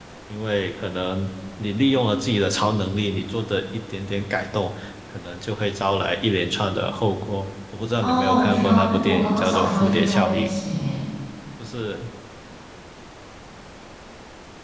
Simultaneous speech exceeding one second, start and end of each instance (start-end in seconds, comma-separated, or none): 8.0-10.4